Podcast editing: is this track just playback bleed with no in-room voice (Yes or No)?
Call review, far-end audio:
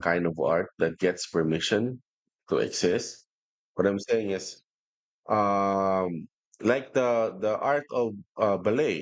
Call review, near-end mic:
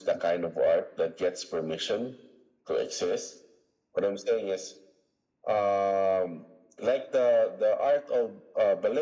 Yes